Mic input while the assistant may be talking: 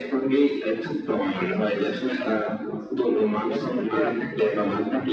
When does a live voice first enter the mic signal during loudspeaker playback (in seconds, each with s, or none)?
3.5 s